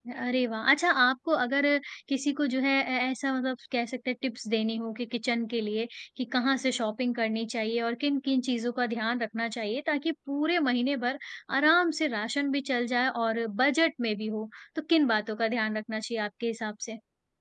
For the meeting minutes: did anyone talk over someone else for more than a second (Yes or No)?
No